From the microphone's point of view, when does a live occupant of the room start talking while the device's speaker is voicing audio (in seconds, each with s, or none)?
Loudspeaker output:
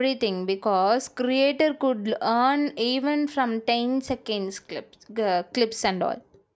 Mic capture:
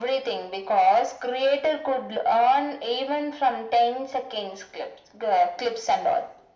none